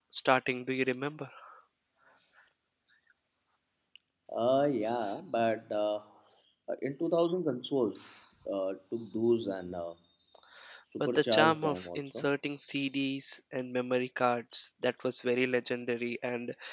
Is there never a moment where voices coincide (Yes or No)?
No